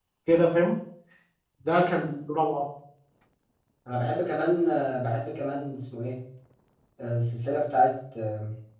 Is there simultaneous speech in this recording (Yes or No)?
No